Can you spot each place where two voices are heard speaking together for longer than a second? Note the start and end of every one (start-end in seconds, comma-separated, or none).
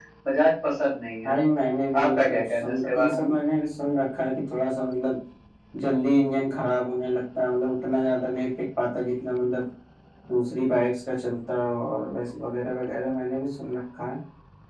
2.0-3.3